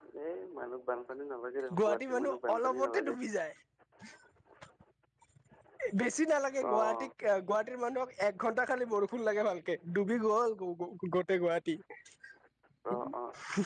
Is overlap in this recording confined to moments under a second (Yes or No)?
No